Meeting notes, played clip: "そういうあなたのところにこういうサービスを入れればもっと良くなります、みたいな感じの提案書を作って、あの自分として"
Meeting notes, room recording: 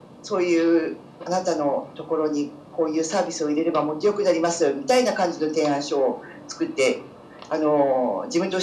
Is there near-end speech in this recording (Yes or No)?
No